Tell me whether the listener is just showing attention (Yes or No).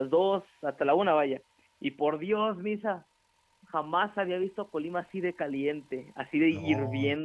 No